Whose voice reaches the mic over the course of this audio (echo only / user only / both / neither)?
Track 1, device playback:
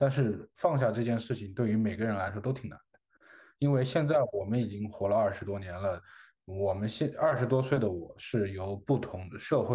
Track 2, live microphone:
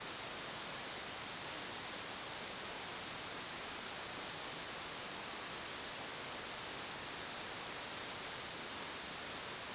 neither